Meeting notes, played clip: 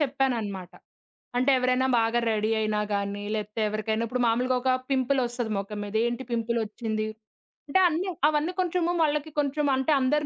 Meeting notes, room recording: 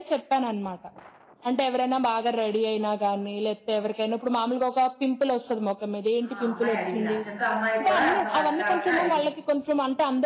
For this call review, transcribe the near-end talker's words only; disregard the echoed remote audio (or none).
ఆ అమ్మాయి అడిగింది. అచంత అమ్మాయి కూడా అంత వెటకారంగా అడిగింది.